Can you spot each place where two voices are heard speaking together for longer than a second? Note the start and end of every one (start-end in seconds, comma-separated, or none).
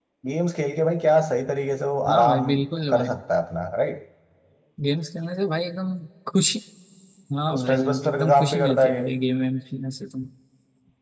7.5-9.0